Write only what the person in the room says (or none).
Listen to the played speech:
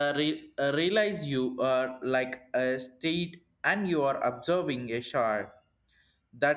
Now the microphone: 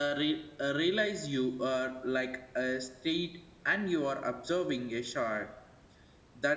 none